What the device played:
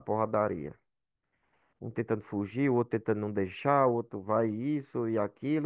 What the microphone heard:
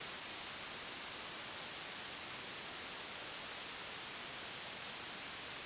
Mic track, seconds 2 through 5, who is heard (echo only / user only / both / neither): neither